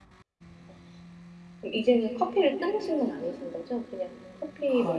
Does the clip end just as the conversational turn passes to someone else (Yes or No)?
Yes